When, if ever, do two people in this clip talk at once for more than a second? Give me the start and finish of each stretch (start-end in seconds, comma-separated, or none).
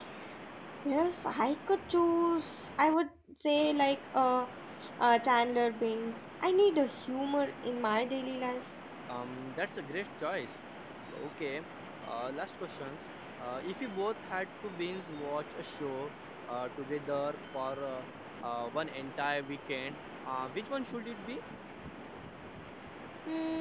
none